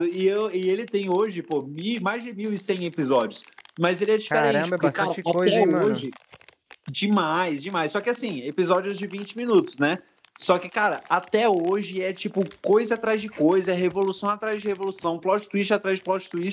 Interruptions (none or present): present